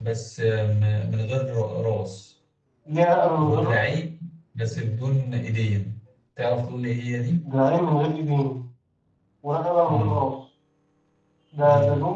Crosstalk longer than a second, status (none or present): none